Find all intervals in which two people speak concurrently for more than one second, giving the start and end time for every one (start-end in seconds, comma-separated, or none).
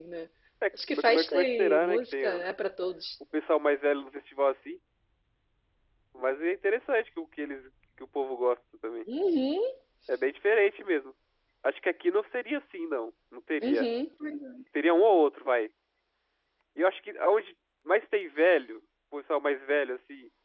0.9-2.5